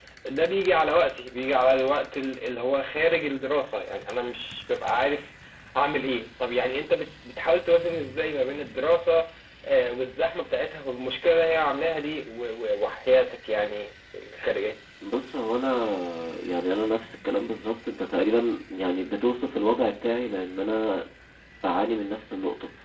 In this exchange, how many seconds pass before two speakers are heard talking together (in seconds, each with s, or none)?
none